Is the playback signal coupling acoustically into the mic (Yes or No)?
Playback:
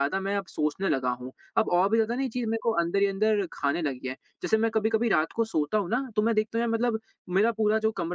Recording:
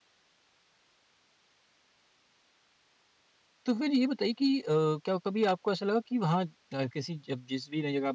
No